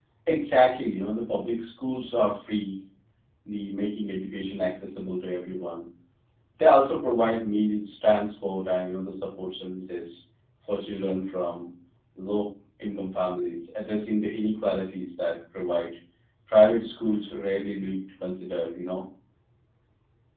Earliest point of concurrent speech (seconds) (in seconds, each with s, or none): none